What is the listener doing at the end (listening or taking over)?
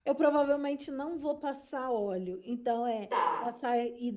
listening